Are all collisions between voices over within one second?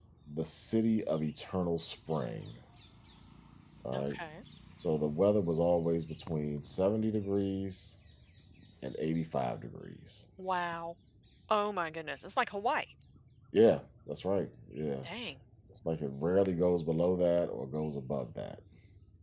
Yes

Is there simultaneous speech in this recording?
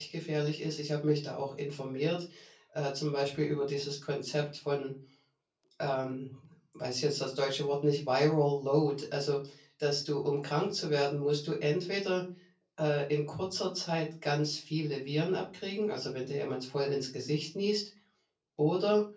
No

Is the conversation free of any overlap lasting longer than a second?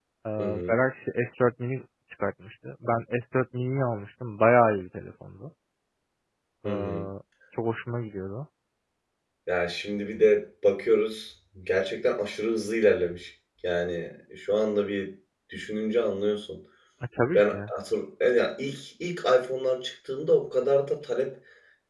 Yes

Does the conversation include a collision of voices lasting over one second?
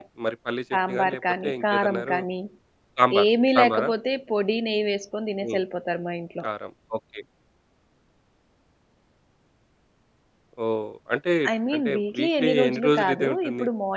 Yes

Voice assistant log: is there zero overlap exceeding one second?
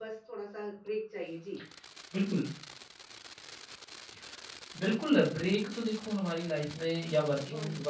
Yes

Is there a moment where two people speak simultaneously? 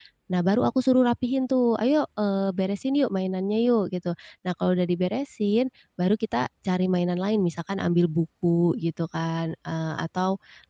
No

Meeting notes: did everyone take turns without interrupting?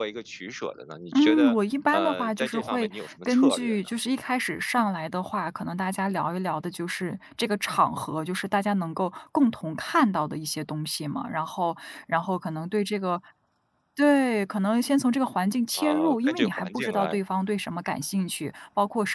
No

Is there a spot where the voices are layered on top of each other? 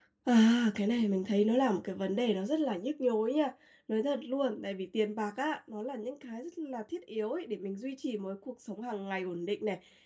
No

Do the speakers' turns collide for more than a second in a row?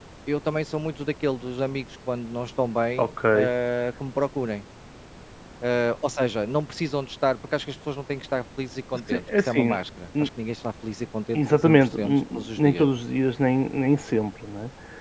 Yes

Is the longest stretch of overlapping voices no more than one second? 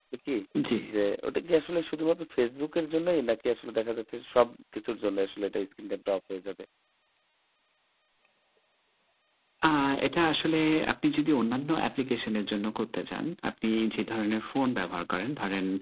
Yes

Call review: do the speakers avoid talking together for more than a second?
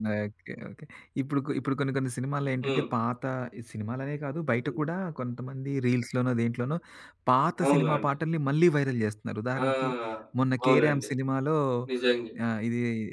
Yes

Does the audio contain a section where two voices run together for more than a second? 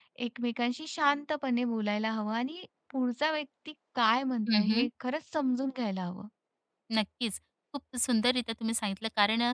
No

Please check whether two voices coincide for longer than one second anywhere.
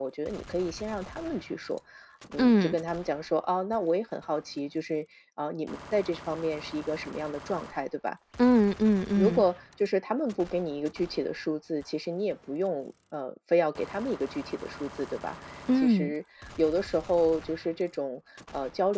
No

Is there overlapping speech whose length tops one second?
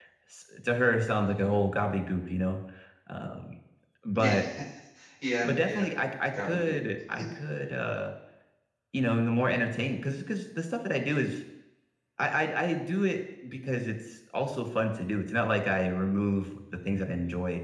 No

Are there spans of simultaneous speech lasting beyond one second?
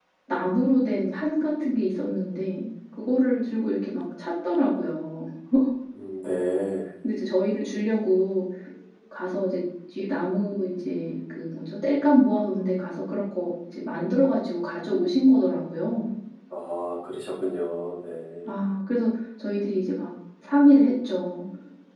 No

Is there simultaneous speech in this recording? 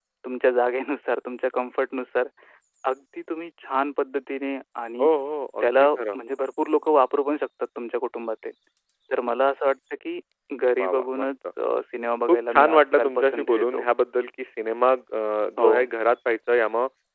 Yes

